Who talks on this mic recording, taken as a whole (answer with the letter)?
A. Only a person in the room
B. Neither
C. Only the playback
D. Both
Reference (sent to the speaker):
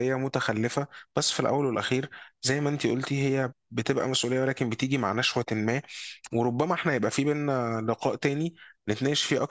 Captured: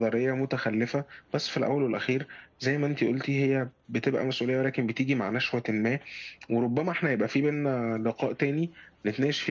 C